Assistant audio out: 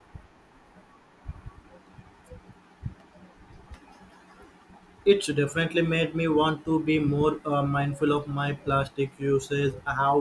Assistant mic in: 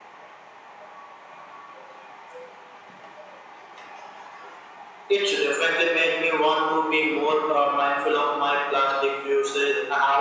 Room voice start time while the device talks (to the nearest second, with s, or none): none